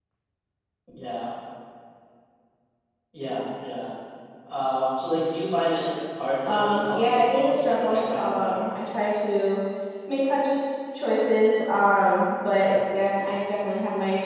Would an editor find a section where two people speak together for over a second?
Yes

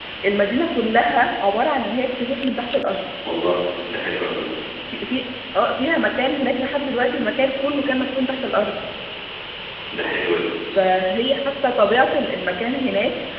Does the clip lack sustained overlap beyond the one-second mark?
Yes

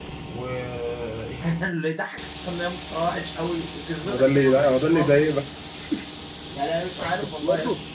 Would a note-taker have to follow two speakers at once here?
Yes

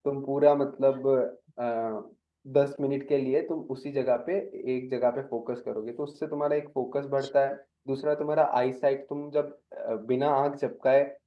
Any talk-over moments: No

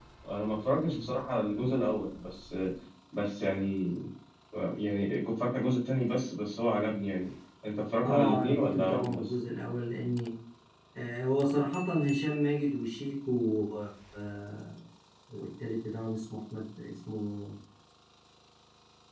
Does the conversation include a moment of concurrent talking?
Yes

